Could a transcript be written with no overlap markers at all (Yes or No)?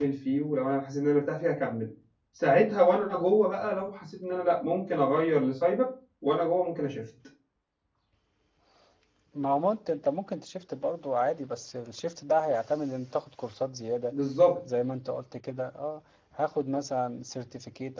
Yes